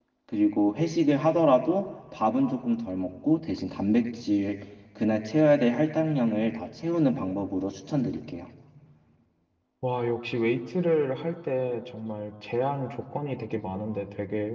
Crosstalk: none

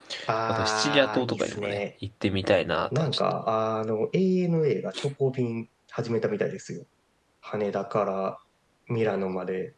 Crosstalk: present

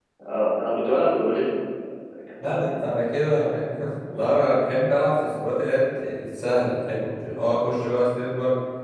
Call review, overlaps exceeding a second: none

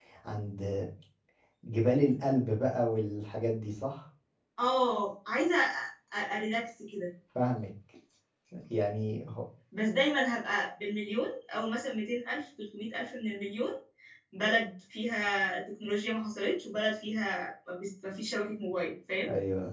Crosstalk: none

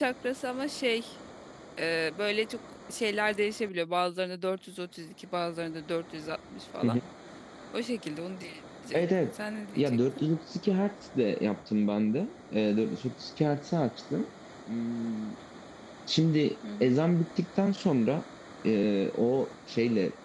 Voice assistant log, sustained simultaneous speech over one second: none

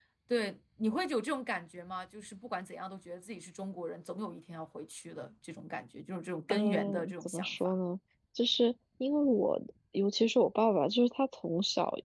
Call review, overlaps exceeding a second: present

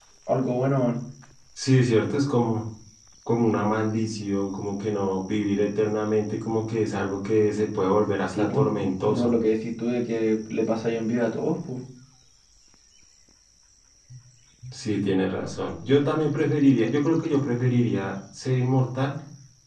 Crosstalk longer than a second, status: none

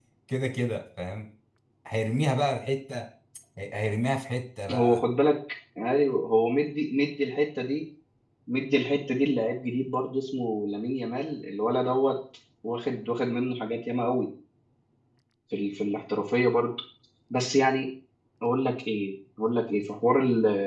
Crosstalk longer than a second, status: none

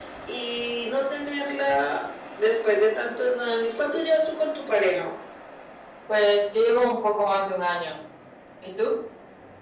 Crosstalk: none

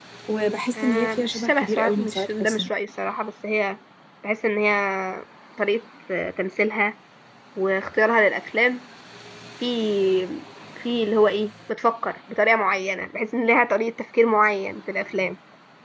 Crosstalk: present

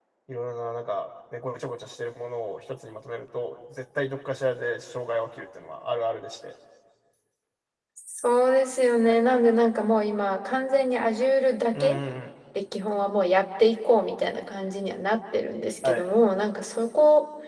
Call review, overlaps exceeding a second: none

